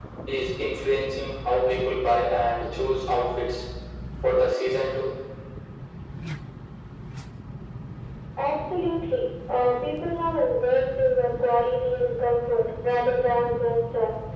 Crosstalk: none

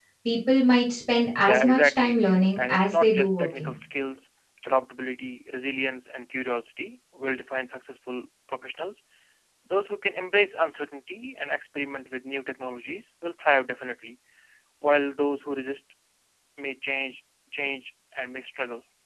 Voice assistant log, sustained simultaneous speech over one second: present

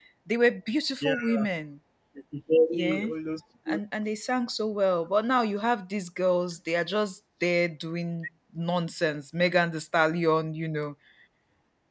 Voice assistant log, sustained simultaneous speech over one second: none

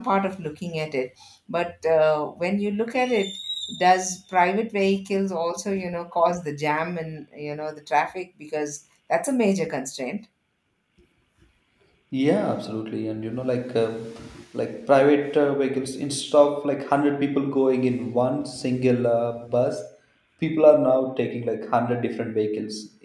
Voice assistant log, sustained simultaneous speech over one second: none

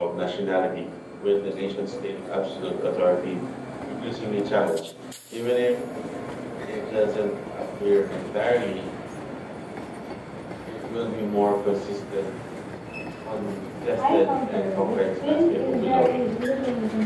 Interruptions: present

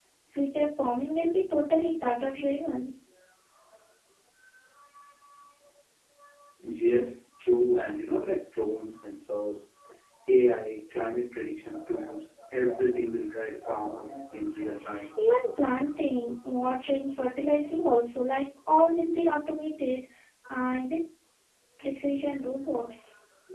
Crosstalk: none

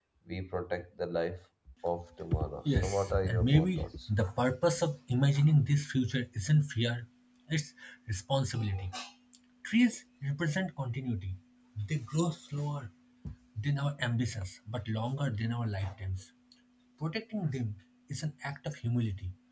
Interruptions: present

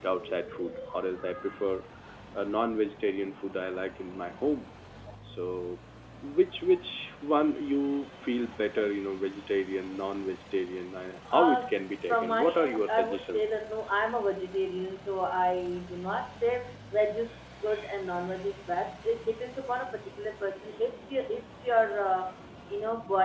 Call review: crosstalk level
present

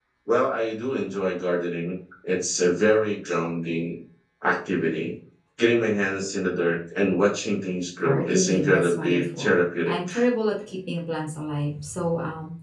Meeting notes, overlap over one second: present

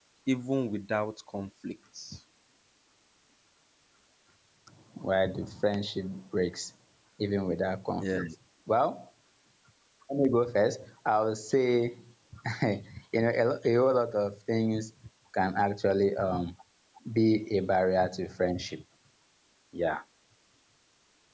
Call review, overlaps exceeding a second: none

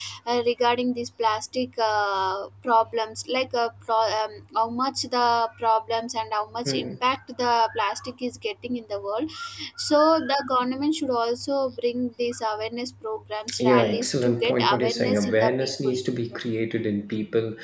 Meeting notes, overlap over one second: present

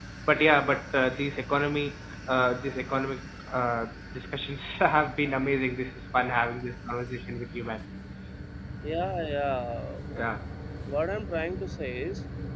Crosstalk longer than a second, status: none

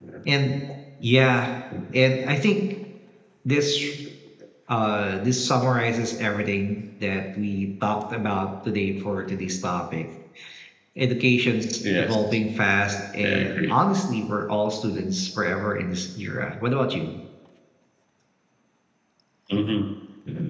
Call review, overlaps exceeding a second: none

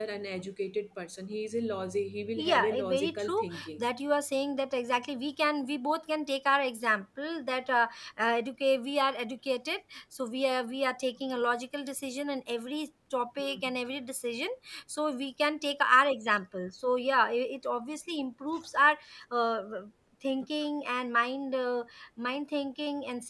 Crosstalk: present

